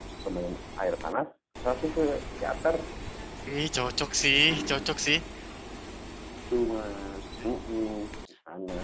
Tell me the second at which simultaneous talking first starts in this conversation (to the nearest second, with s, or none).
none